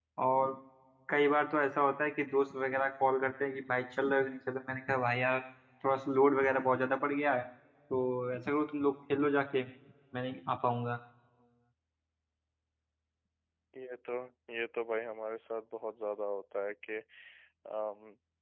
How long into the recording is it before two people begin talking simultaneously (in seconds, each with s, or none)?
none